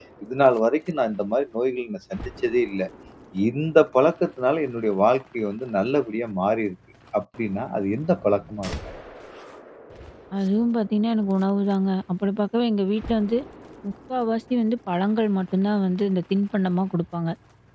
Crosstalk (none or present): none